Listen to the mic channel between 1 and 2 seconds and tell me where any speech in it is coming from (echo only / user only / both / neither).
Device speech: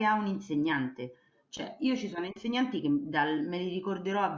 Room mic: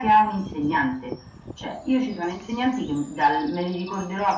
echo only